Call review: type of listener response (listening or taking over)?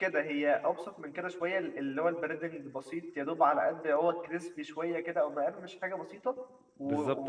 taking over